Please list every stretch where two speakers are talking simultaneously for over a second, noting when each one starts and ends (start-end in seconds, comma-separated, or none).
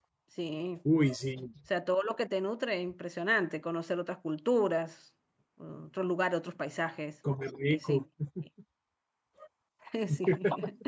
none